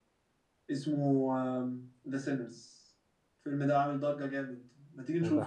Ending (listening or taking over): listening